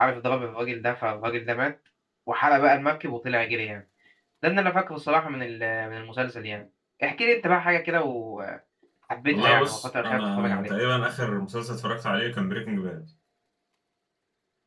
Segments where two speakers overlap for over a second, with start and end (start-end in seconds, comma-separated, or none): 9.4-10.7